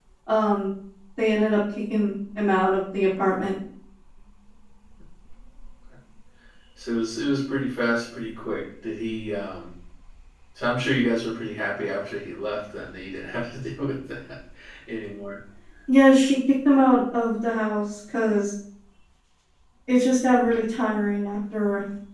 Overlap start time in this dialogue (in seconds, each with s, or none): none